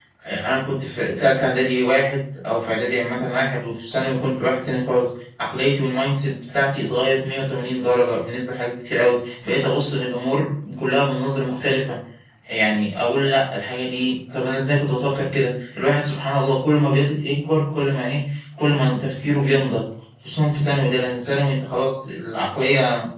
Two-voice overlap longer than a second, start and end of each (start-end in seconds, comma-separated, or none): none